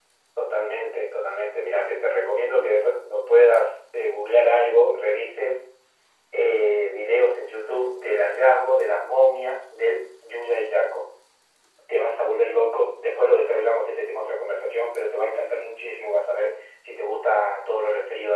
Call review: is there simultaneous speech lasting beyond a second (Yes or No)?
No